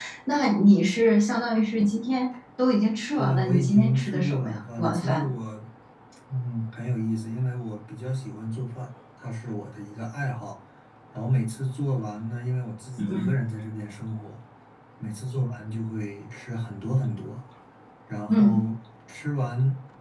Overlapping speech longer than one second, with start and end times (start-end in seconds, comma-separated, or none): 3.1-5.3